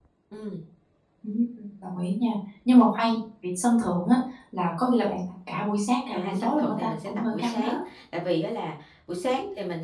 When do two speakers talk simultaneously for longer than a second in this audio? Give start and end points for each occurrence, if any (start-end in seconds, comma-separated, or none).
6.1-7.8